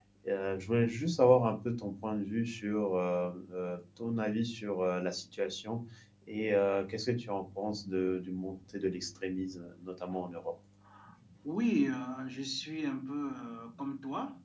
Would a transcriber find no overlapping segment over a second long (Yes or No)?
Yes